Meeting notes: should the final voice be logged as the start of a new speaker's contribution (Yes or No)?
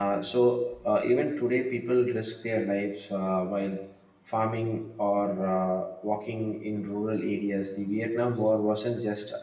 No